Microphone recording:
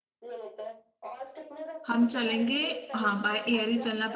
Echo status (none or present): present